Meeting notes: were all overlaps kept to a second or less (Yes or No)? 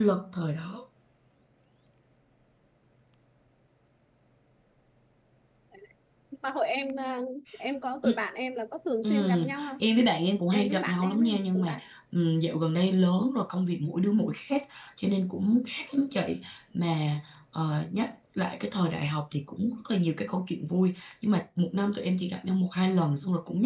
No